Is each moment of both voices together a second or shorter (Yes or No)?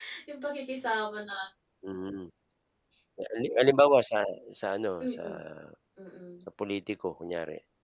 Yes